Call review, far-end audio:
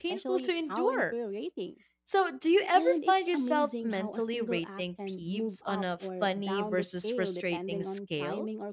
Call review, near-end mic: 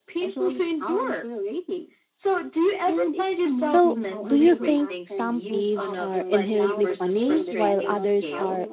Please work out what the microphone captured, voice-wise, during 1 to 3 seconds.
echo only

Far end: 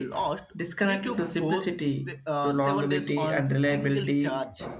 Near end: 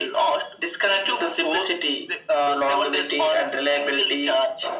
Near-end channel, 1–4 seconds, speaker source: echo only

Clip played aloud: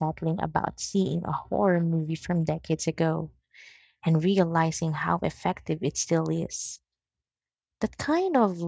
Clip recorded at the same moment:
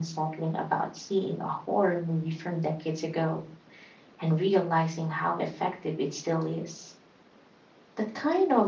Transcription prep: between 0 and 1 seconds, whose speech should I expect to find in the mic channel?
echo only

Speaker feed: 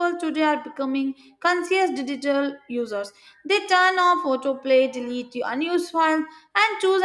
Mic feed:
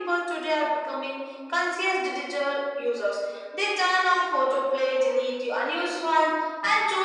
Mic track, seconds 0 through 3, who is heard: echo only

